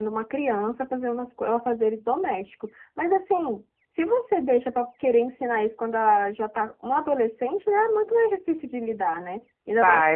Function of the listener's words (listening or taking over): listening